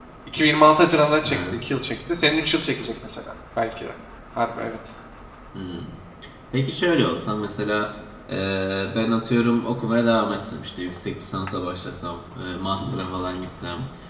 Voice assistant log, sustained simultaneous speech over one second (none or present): none